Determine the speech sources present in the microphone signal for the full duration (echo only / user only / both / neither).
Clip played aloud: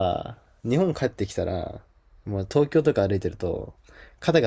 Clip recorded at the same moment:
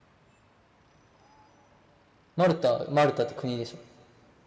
user only